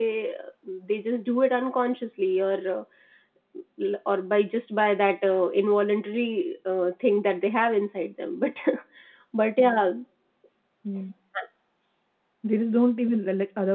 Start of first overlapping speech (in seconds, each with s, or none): none